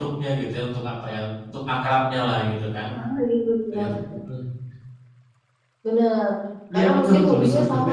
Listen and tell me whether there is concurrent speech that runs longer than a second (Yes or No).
Yes